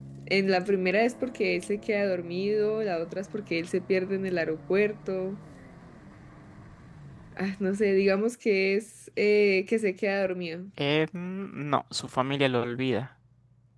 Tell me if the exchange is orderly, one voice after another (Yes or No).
Yes